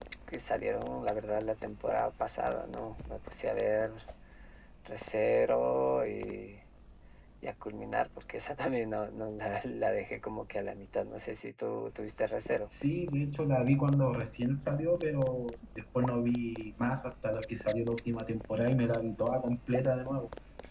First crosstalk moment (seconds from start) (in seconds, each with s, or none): none